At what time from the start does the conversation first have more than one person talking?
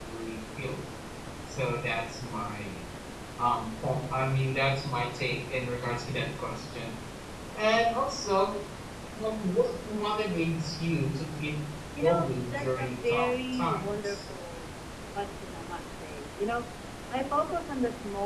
12.0 s

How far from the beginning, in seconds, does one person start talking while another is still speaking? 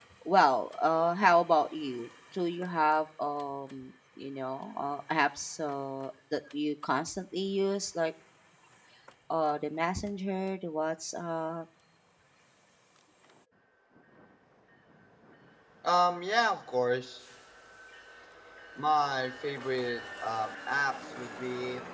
none

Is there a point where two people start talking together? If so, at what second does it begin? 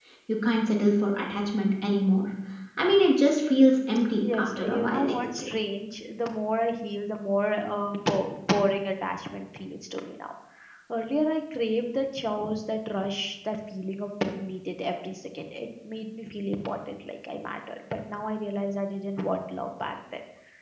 4.2 s

